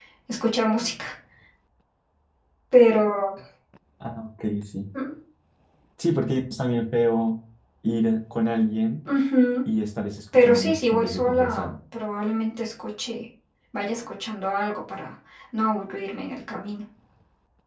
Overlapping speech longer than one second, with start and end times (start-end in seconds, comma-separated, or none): 10.3-11.8